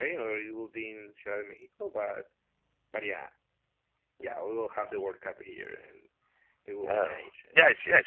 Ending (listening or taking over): taking over